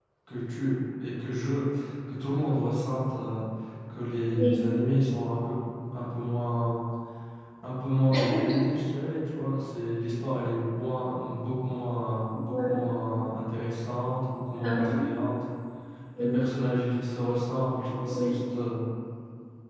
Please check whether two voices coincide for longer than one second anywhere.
No

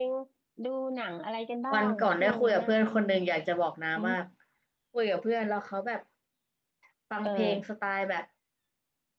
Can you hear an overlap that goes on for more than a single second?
Yes, from 1.7 s

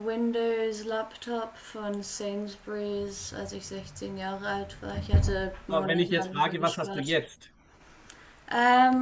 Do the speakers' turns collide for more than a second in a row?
Yes, from 5.7 s

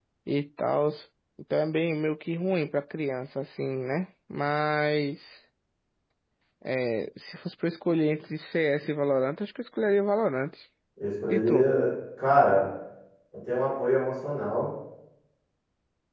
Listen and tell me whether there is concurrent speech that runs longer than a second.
No

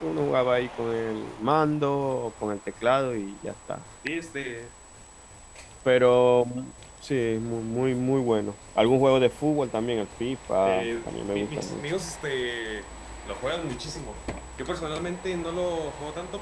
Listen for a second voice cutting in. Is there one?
Yes, from 10.7 s

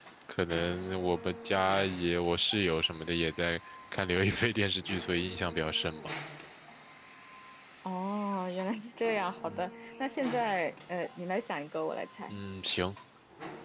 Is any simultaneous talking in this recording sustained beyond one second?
No

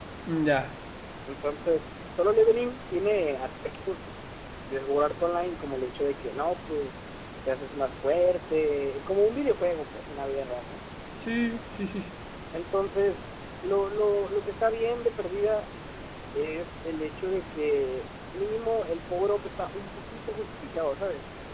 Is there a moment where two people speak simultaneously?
No

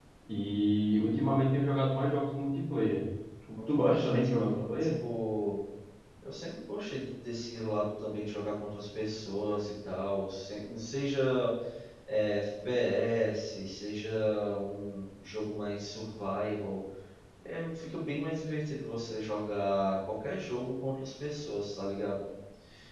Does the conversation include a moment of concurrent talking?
Yes, from 3.7 s

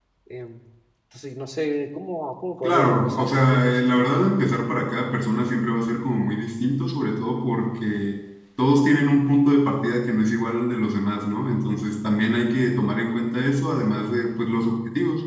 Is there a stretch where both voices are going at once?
Yes, from 2.6 s

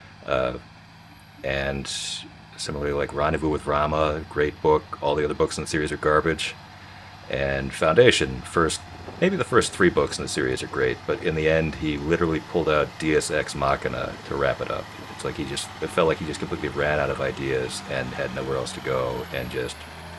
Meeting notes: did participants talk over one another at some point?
No

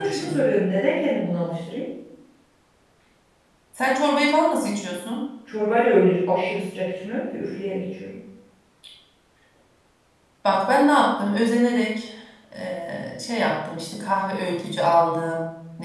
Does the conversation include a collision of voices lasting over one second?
No

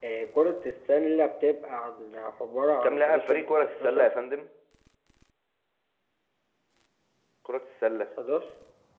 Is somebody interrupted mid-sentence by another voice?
Yes, from 2.8 s

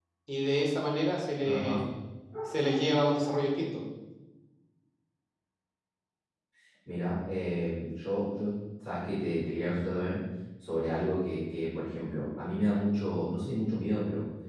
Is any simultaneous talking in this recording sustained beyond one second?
No

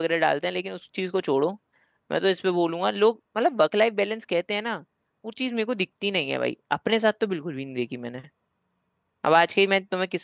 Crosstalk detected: No

